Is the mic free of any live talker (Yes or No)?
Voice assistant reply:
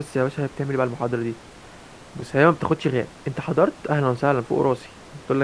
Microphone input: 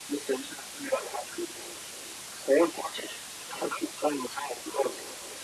Yes